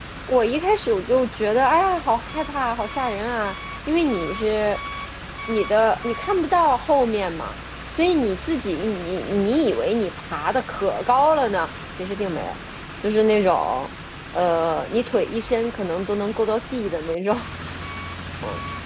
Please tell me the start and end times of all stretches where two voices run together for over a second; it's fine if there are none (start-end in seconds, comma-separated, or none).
none